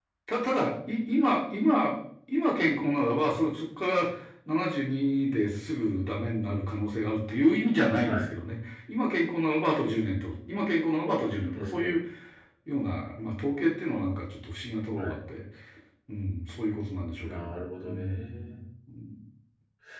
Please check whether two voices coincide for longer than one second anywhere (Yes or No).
Yes